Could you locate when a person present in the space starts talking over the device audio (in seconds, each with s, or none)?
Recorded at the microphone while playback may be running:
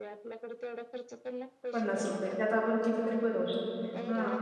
1.7 s